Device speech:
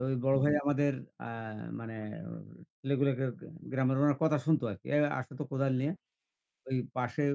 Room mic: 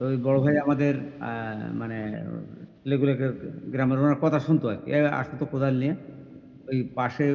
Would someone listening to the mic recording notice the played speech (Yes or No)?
Yes